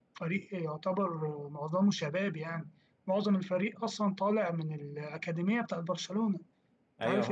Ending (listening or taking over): taking over